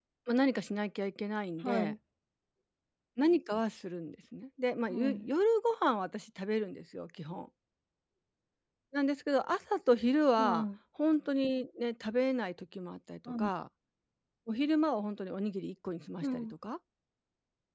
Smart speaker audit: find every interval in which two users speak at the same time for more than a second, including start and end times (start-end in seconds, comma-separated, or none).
none